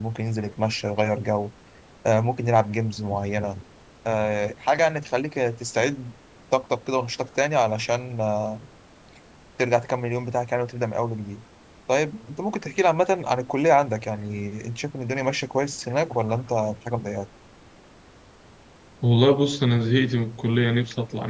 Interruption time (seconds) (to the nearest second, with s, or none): none